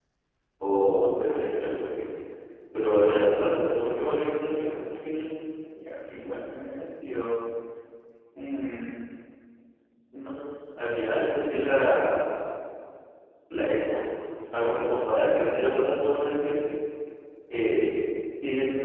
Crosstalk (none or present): none